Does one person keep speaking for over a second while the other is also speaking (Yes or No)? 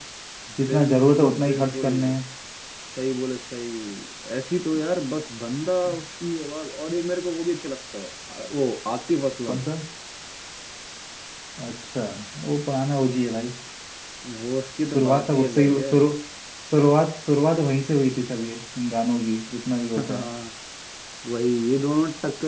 Yes